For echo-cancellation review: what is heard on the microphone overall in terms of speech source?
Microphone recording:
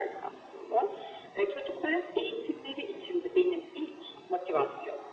echo only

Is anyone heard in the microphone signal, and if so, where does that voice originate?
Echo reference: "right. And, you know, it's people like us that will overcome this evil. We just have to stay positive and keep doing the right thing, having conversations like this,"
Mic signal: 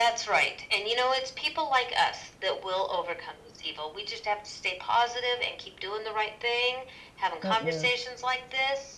both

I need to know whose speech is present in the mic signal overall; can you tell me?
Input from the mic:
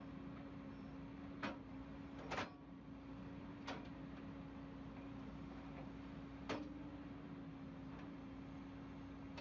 neither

